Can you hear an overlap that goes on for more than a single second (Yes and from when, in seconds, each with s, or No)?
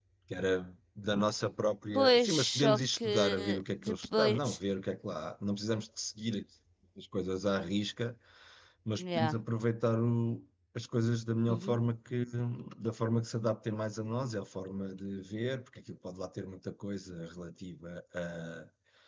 Yes, from 2.0 s